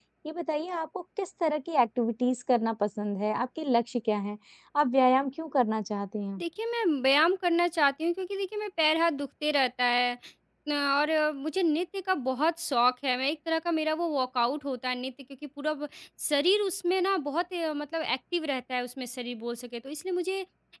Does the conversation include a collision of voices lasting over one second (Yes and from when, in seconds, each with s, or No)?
No